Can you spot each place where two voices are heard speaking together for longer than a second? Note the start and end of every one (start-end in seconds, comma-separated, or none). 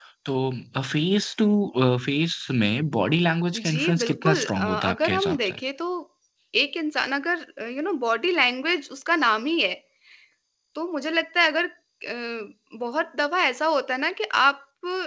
3.5-5.5